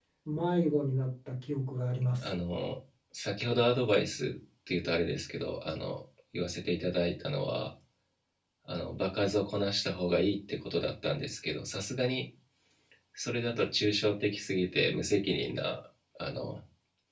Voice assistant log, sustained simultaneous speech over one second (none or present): none